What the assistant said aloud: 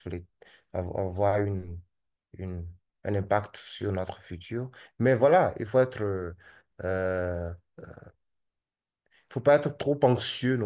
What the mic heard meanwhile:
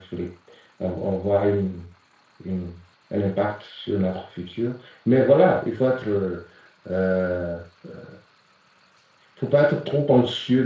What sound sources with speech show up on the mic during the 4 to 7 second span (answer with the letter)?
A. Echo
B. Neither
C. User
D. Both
A